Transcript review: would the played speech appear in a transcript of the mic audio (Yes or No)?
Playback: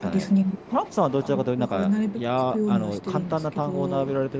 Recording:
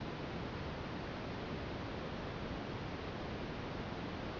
No